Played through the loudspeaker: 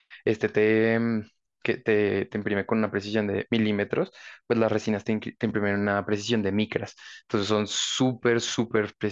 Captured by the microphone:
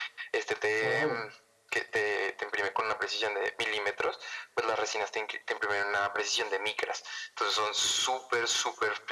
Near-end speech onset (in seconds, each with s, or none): 0.8 s